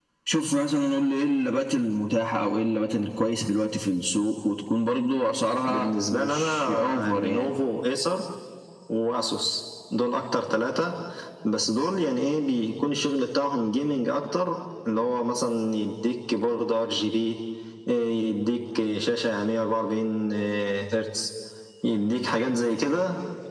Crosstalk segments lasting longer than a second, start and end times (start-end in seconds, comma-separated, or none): 5.7-7.5